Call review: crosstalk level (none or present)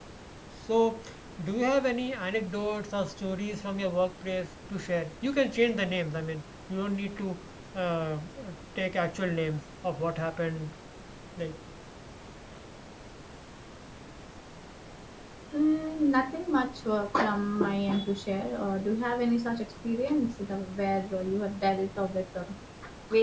none